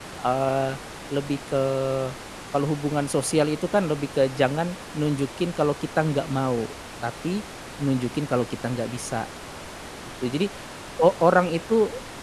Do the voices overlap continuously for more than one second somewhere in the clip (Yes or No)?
No